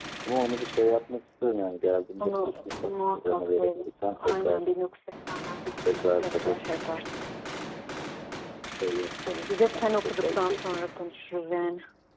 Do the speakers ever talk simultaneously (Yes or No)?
Yes